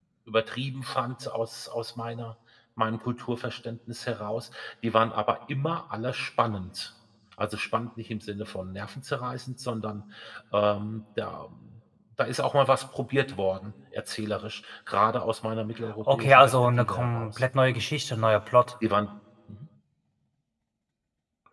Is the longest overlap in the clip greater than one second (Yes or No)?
Yes